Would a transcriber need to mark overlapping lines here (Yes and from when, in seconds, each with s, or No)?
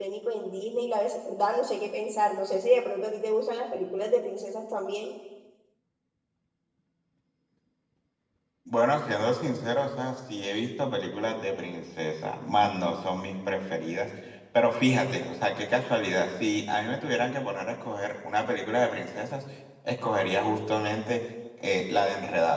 No